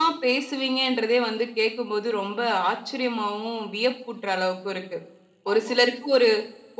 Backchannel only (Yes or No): Yes